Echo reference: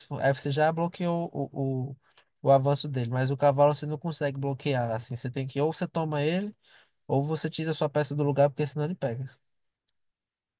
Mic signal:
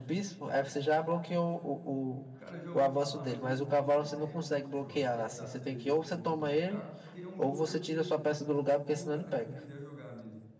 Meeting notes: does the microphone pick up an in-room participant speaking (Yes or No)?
Yes